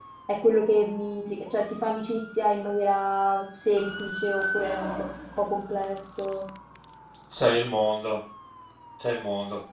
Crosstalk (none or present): none